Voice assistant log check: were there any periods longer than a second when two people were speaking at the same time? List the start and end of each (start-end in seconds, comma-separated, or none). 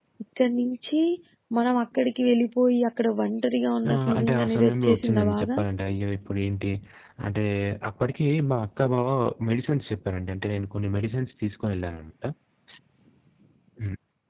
3.9-5.5